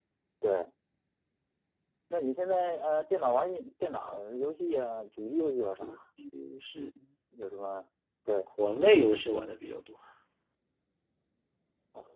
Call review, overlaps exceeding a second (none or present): none